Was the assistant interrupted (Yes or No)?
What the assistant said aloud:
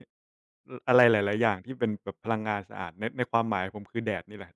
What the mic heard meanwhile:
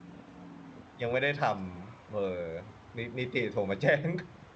Yes